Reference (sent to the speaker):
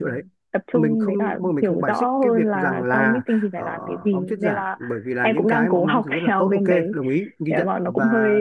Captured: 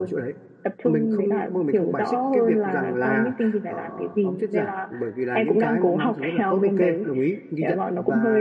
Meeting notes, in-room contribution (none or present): none